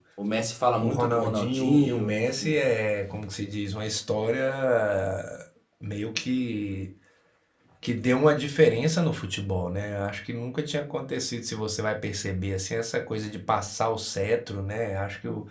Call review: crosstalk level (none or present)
present